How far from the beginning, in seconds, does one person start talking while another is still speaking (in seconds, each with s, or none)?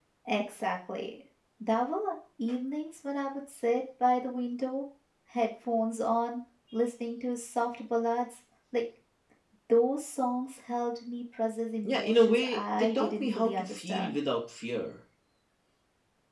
11.8 s